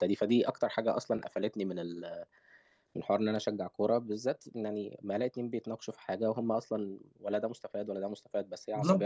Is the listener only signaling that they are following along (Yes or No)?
Yes